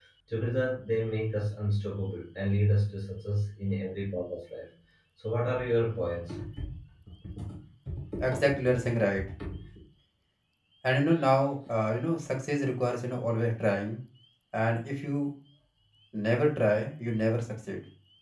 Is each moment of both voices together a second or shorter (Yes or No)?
Yes